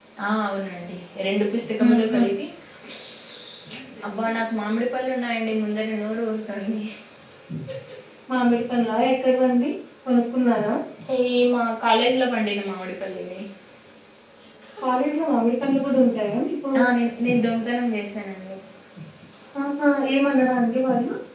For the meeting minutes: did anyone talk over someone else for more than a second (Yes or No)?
No